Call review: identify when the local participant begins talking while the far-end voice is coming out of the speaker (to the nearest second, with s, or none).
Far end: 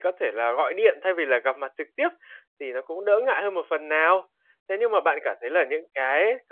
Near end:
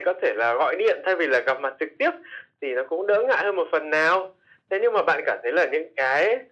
none